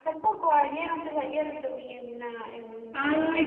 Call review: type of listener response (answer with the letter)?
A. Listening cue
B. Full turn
B